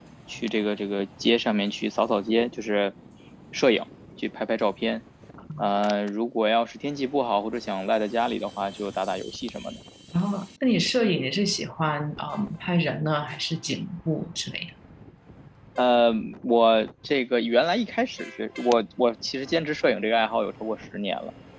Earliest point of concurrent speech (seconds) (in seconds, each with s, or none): none